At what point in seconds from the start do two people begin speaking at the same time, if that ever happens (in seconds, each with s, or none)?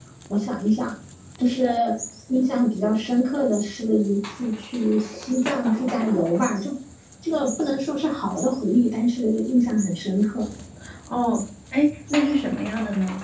none